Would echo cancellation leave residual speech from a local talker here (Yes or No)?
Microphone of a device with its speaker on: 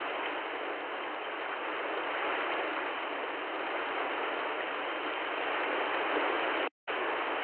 No